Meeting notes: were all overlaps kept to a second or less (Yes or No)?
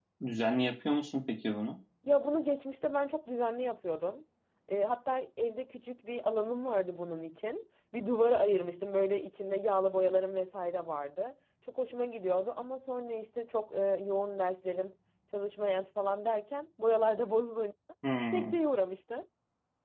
Yes